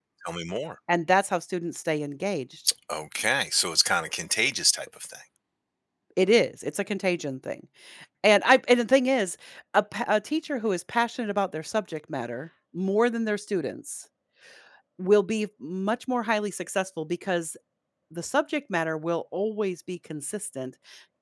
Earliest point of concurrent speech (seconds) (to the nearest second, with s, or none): none